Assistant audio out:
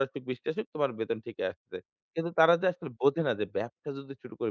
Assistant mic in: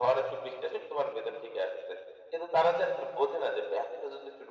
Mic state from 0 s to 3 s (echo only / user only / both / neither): echo only